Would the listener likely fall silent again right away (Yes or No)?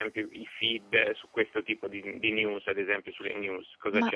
No